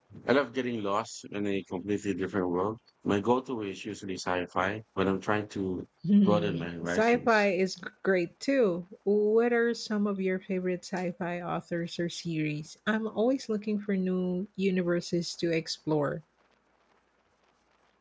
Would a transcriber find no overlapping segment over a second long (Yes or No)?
No